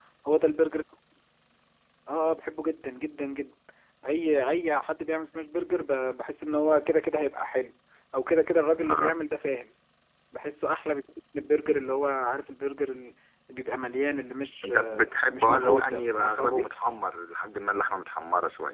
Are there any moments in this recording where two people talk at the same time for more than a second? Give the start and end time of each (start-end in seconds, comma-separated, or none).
14.6-16.7